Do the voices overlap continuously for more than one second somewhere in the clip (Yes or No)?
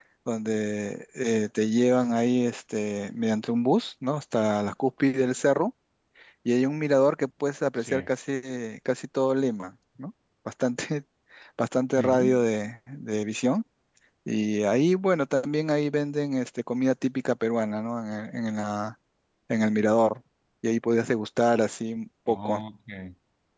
No